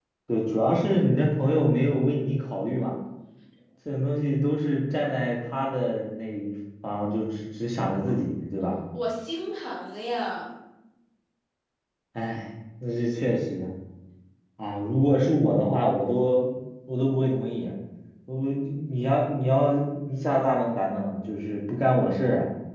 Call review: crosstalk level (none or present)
none